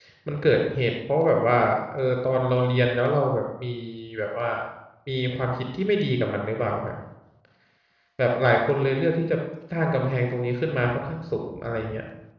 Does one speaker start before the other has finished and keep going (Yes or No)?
No